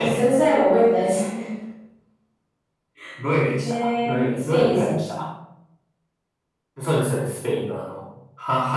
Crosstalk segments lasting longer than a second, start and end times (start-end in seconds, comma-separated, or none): 3.6-5.0